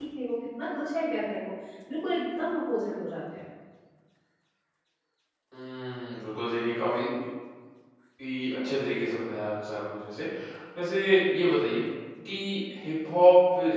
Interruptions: none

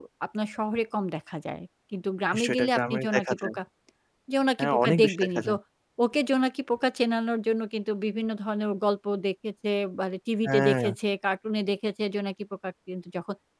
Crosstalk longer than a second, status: present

